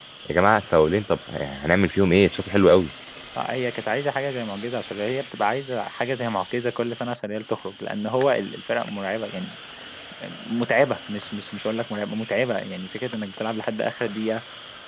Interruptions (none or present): none